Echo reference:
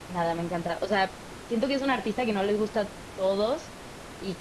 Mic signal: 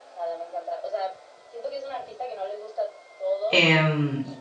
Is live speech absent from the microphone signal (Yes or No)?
No